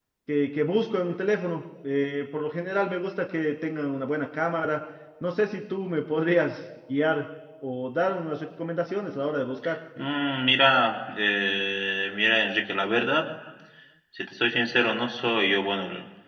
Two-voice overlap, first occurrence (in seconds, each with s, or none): none